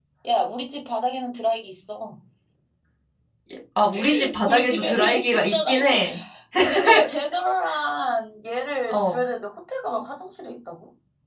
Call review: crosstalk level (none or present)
present